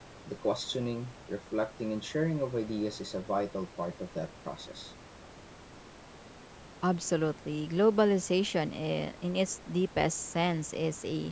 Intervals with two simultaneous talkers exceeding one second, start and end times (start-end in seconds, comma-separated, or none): none